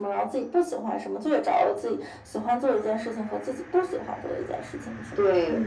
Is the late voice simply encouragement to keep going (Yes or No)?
No